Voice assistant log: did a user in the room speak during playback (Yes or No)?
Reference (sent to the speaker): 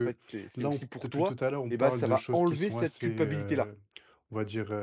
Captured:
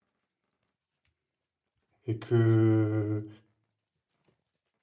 Yes